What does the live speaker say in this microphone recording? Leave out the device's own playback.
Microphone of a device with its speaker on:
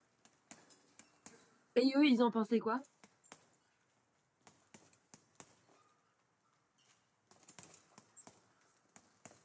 Et eux, ils en pensaient quoi?

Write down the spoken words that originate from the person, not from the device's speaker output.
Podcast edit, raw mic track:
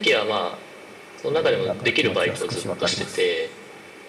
えーだから気持ちは少しわかります。

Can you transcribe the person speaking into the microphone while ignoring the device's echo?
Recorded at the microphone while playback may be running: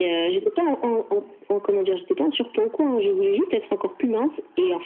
none

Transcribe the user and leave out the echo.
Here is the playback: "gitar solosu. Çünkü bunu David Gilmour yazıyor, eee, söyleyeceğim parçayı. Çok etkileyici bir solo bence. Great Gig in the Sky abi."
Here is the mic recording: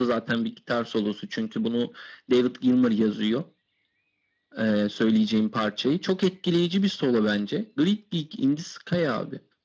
none

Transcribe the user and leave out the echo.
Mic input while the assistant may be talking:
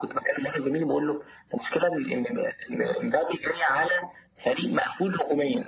none

